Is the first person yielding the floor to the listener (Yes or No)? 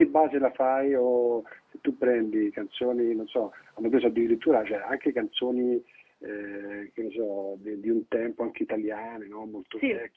No